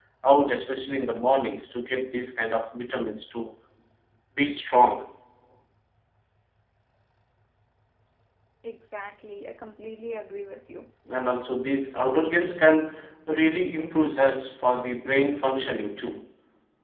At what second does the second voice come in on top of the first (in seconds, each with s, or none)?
none